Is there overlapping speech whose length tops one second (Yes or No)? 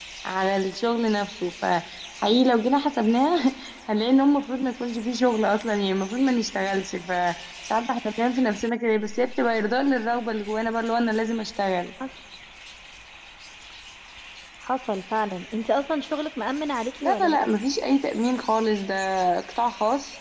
No